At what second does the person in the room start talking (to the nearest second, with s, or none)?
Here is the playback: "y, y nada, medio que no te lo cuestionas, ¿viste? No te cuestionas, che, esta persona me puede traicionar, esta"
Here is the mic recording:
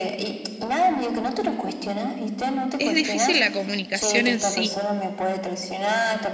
3 s